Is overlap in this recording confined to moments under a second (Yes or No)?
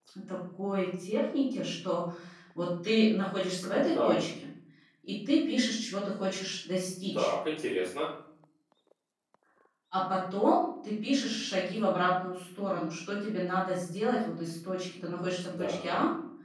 Yes